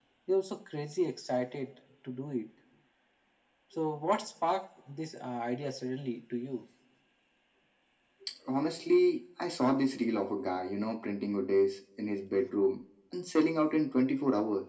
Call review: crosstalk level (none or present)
none